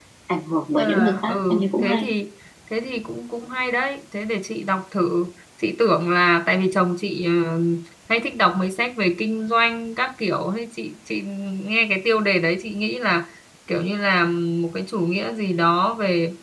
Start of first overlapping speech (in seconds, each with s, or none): 0.8 s